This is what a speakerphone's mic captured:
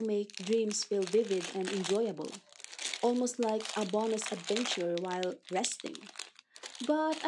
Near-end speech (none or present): present